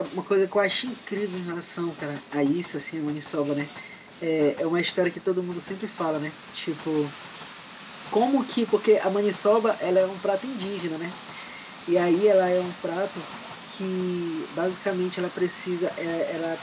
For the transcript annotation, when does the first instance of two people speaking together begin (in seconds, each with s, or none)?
none